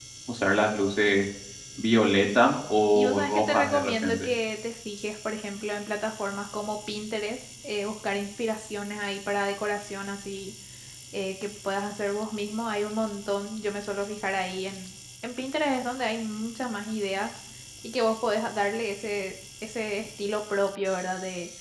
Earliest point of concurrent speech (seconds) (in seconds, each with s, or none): 2.9 s